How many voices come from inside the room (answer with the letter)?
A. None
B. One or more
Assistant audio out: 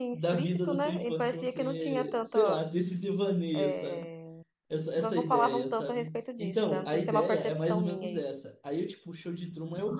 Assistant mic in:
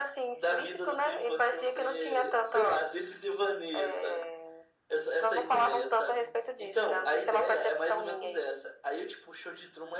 A